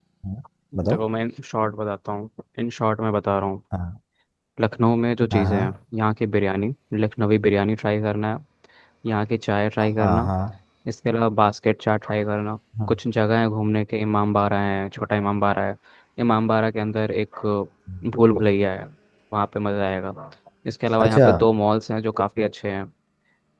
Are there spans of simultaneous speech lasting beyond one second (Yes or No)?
No